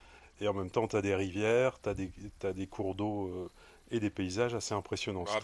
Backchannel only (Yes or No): No